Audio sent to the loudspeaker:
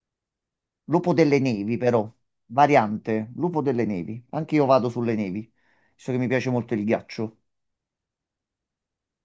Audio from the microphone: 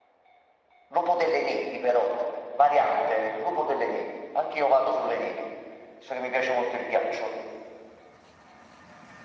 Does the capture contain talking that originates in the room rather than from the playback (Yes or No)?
No